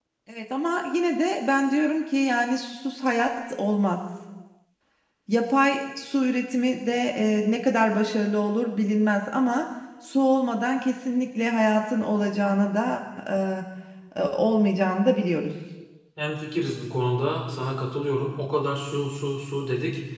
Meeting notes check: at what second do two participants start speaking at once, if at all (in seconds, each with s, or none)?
none